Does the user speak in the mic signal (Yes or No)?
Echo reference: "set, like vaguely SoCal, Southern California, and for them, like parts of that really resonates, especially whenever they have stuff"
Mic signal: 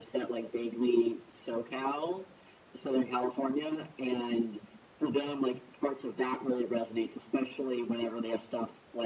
No